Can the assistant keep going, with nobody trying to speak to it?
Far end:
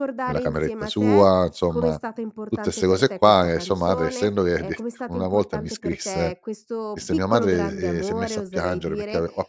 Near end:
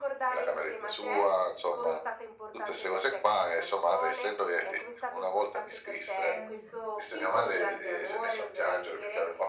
No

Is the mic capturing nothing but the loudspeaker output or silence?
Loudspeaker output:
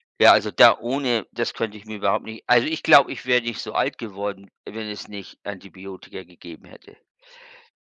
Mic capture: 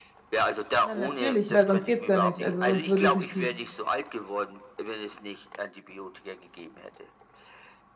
No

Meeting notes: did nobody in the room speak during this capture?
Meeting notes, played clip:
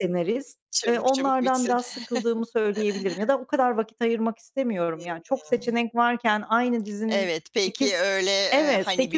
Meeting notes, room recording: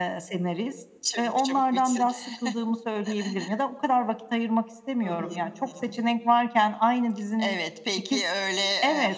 No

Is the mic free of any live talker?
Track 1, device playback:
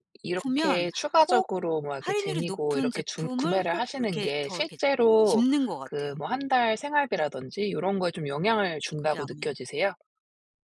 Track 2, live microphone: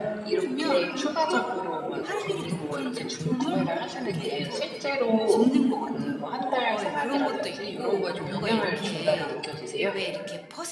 No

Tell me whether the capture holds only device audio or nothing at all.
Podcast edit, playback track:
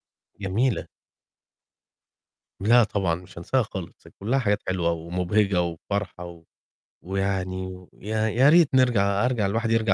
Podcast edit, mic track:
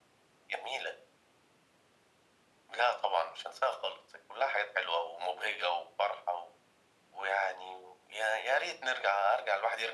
Yes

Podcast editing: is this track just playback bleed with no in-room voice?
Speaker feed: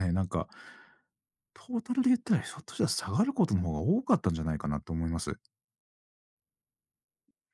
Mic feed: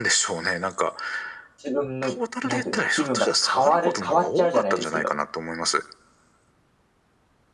No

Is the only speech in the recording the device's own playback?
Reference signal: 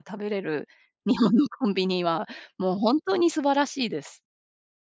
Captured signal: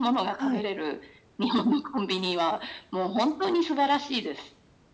No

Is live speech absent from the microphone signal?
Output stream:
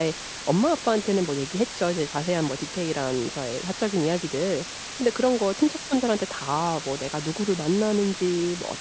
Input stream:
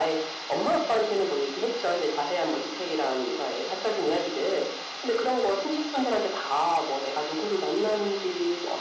Yes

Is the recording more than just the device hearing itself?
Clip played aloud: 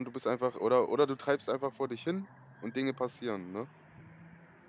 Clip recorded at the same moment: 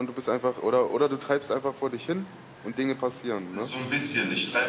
Yes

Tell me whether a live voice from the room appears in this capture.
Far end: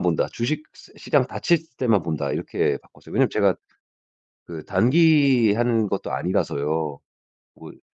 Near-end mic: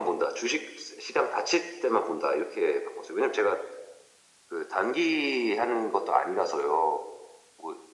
No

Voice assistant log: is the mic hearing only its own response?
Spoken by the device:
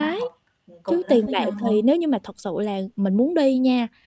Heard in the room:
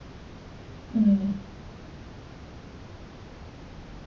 No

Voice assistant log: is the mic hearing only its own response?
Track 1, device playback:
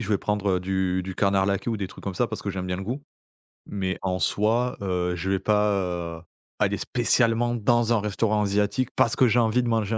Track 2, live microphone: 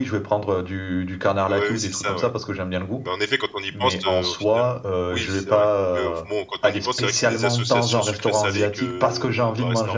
No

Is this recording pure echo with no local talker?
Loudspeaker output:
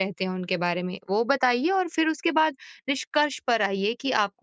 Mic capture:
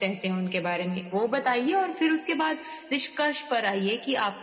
Yes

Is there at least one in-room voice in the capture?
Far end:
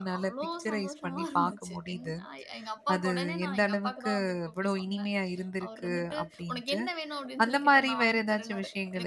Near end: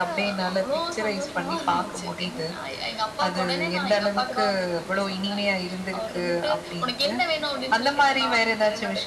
No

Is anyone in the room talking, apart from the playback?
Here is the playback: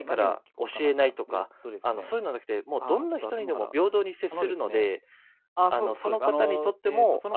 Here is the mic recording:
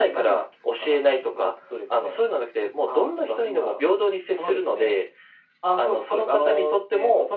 No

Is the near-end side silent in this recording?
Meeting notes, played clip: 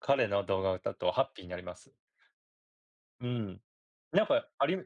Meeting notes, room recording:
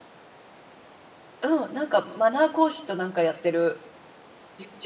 No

